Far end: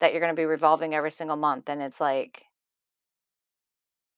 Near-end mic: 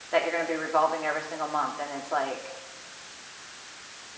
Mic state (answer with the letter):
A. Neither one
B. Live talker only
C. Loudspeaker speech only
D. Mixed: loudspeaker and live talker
C